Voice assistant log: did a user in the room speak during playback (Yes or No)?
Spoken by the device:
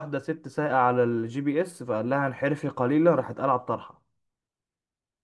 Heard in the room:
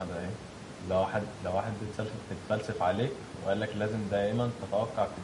Yes